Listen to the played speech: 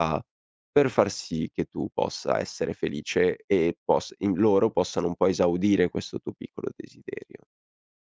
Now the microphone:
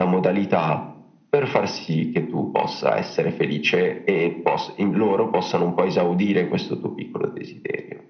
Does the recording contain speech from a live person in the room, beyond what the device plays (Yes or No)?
No